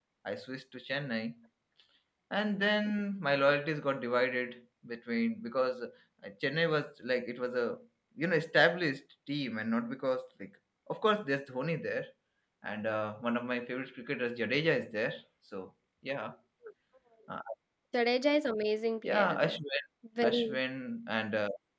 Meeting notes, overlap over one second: none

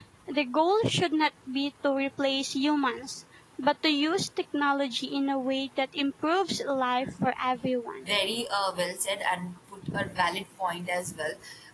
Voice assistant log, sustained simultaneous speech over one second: none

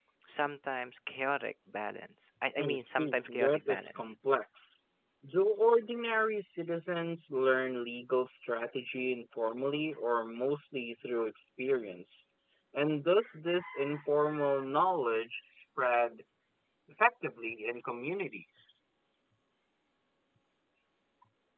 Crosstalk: present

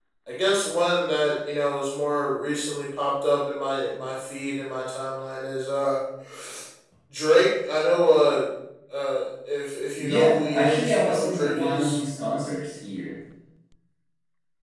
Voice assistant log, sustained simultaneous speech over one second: present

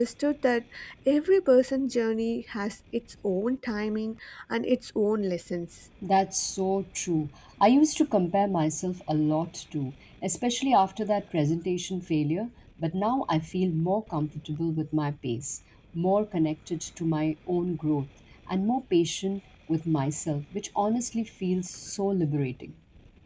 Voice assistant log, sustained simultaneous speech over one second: none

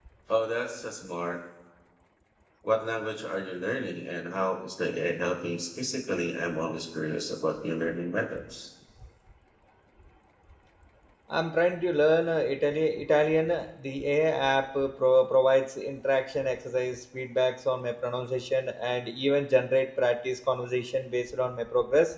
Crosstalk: none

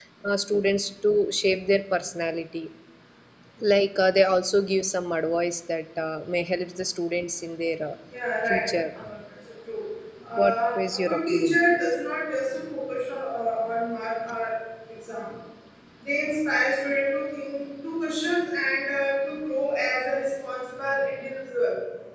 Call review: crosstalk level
present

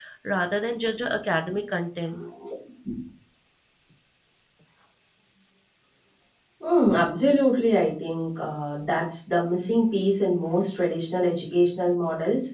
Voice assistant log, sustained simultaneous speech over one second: none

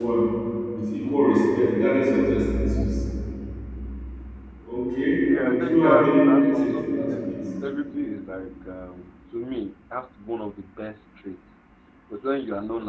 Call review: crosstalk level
present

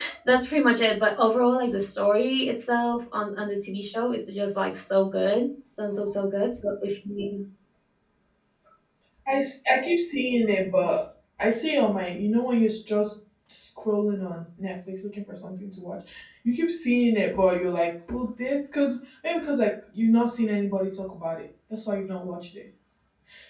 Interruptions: none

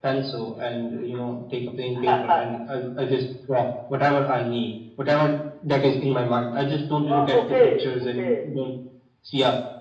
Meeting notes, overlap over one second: present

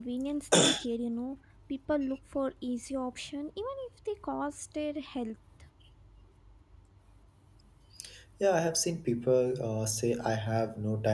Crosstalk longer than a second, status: none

